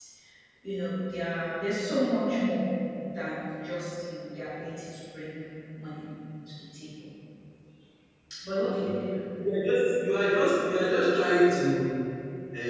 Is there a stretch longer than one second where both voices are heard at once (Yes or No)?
No